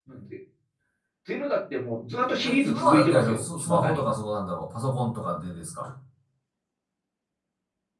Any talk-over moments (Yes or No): Yes